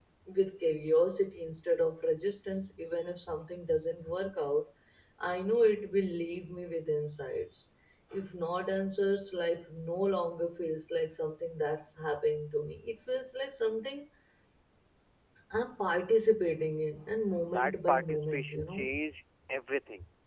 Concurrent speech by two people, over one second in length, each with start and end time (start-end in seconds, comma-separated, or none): 17.5-18.8